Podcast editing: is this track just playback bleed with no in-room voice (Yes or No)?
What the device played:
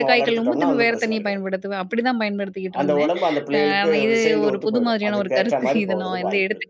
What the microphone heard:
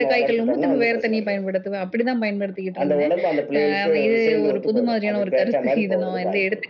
Yes